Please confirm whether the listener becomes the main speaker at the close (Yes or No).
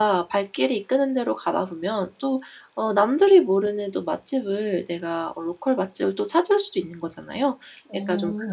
No